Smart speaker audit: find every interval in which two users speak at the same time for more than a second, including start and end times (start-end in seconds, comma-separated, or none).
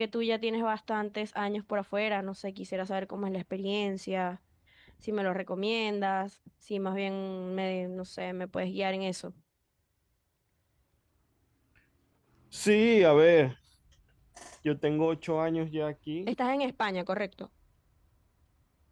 none